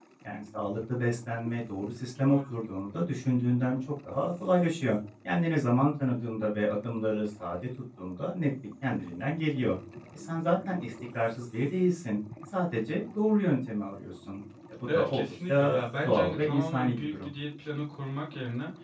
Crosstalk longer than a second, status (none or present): present